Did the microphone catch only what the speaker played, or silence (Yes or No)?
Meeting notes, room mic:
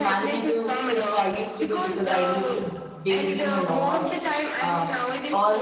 No